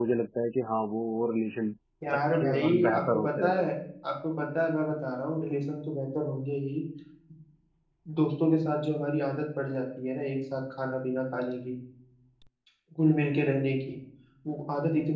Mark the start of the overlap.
2.1 s

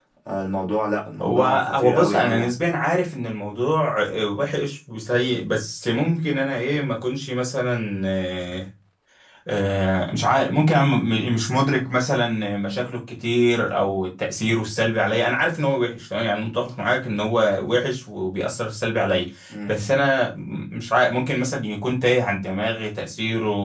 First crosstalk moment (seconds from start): 1.2 s

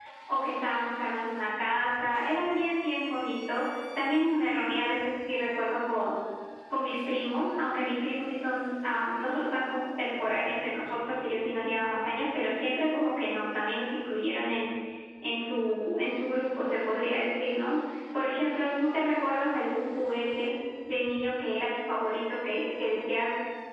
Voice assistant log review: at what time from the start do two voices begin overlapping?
none

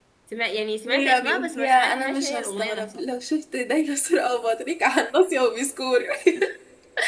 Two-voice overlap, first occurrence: 0.9 s

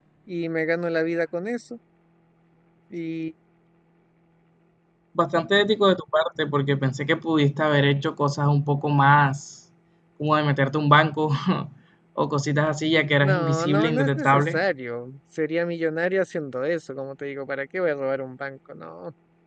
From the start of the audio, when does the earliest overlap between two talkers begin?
13.2 s

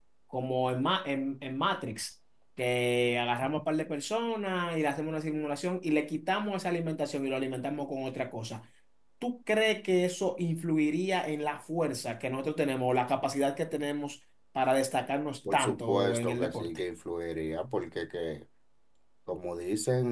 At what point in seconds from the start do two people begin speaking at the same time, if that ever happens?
15.4 s

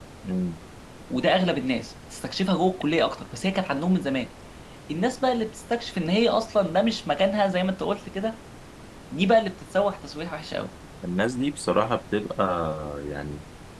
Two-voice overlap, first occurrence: none

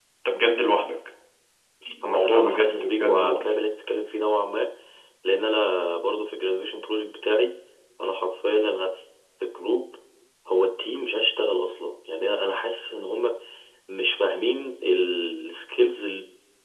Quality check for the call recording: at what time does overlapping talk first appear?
2.0 s

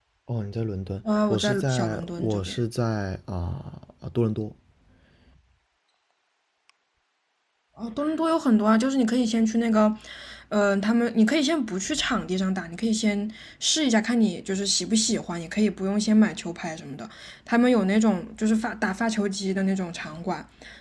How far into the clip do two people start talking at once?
1.3 s

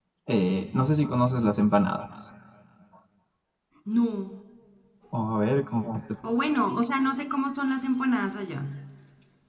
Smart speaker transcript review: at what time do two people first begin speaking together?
none

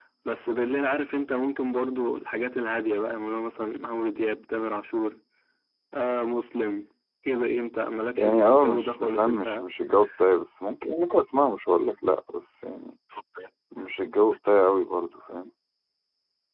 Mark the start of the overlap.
8.2 s

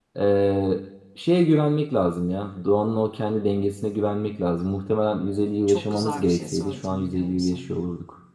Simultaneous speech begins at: 5.7 s

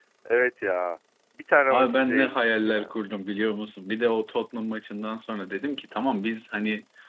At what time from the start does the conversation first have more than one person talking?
1.7 s

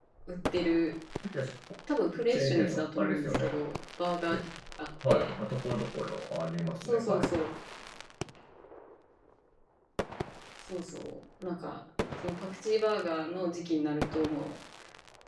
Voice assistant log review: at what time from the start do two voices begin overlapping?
2.3 s

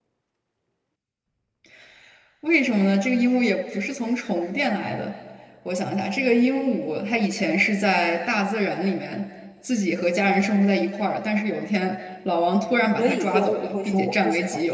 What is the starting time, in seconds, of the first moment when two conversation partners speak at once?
13.0 s

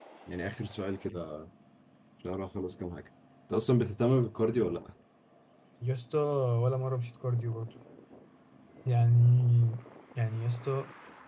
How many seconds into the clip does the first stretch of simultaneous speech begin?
none

